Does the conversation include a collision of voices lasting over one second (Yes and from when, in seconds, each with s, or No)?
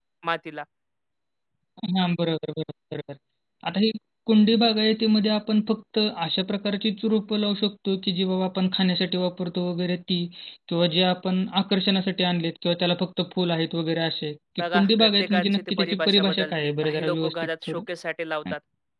Yes, from 14.6 s